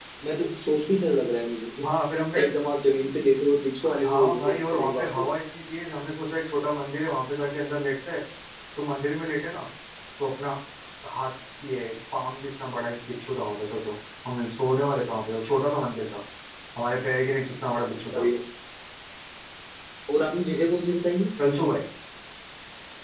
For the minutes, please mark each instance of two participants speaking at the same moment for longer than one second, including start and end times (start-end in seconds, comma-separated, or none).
4.0-5.3